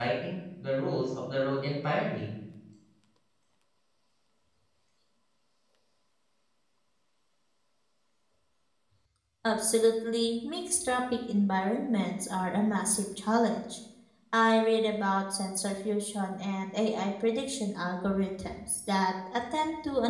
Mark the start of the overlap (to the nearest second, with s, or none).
none